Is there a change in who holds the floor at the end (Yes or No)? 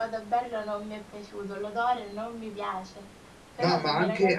Yes